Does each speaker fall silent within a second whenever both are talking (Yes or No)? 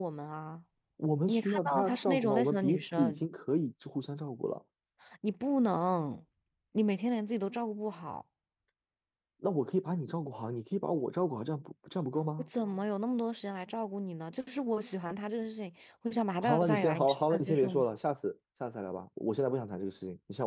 No